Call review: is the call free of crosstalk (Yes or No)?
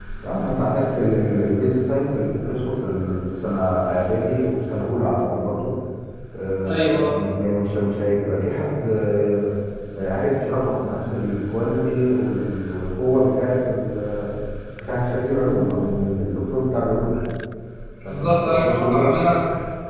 No